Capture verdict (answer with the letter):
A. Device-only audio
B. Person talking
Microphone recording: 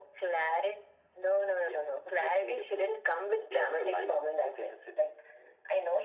A